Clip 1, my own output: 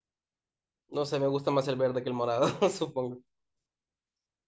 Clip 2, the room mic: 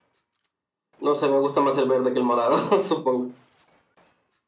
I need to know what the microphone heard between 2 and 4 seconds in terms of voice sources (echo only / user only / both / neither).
echo only